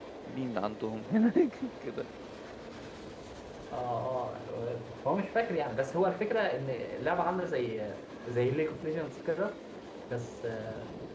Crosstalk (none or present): none